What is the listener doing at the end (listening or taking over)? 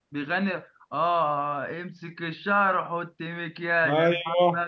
taking over